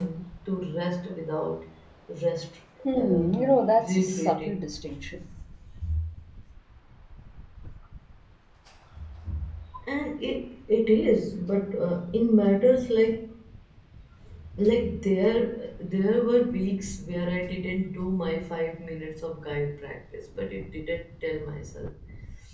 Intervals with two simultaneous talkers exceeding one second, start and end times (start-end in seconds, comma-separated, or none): 3.0-4.6